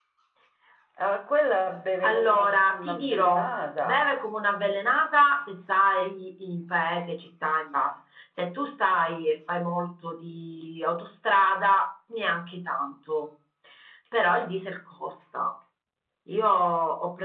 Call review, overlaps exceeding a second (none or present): present